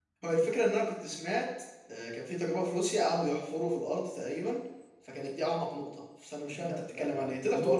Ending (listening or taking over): taking over